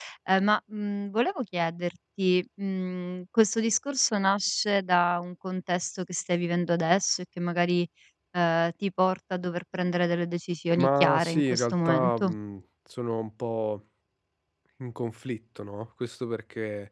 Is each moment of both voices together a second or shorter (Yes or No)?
No